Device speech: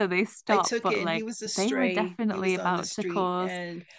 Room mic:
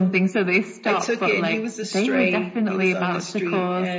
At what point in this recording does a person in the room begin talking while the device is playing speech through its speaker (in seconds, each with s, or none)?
none